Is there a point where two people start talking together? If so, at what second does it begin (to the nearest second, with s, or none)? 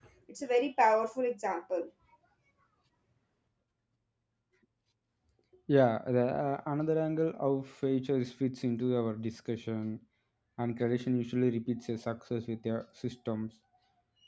none